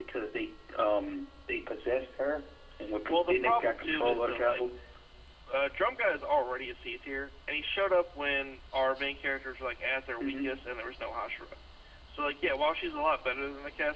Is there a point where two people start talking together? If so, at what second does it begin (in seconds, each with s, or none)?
3.1 s